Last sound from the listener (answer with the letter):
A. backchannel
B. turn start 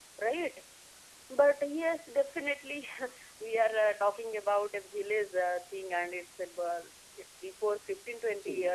A